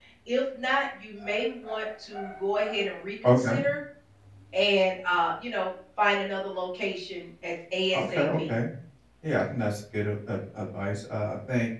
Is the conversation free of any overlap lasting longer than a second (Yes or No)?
Yes